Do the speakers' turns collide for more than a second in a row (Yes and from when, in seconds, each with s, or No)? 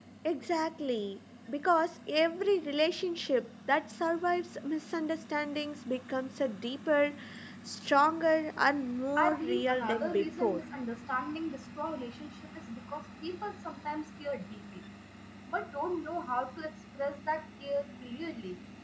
Yes, from 9.2 s